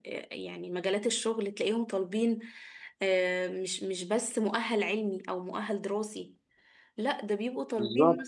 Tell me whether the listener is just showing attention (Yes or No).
Yes